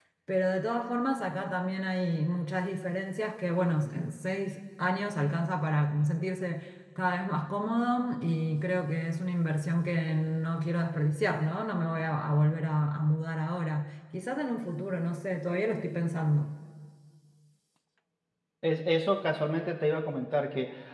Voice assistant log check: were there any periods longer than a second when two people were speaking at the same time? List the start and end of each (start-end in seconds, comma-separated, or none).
none